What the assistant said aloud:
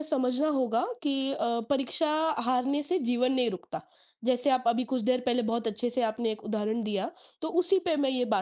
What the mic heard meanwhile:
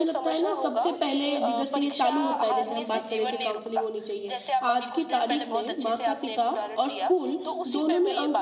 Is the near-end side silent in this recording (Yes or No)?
No